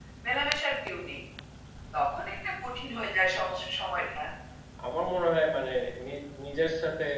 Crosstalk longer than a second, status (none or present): none